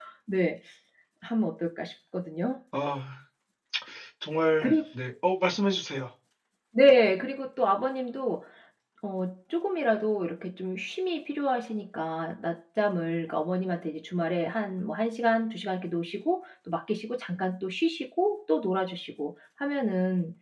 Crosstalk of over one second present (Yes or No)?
No